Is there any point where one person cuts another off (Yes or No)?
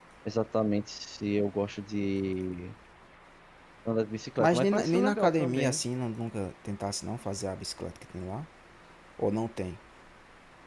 Yes